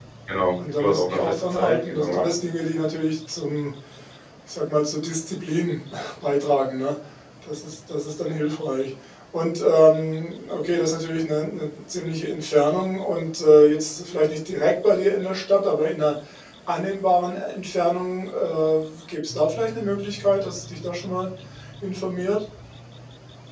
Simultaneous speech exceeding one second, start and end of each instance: 0.8-2.4

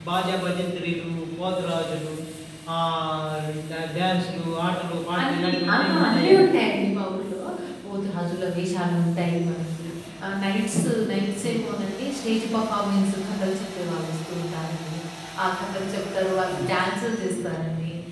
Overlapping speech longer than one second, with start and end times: 5.2-6.5

